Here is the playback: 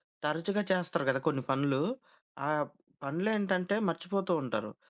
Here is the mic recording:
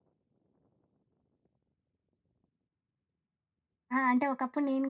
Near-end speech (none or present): present